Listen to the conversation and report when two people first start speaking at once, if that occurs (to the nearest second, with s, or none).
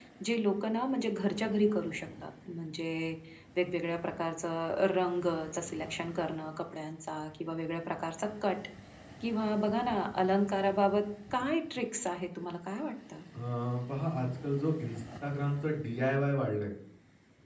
none